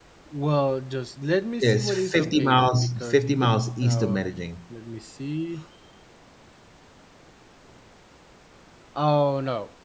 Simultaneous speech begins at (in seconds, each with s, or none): 1.6 s